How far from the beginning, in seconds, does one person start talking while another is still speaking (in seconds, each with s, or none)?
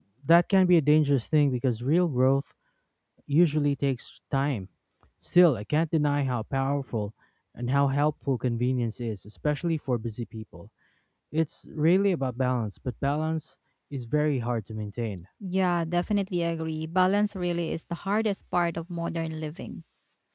none